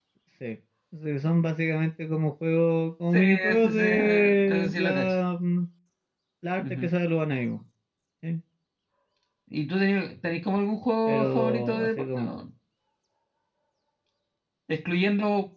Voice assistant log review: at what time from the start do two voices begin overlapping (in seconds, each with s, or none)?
3.1 s